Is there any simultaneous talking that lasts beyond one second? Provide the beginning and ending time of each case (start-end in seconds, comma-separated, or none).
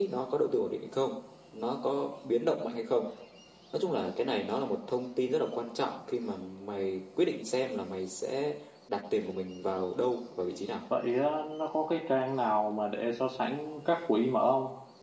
none